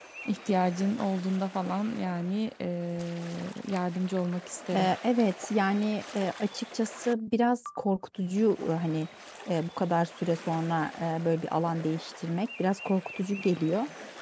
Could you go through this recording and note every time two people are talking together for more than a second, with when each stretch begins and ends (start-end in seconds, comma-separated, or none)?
none